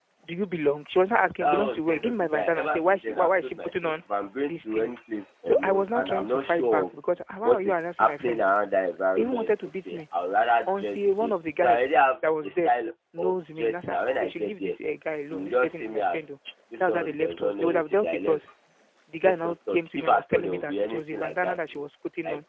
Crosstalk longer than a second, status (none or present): present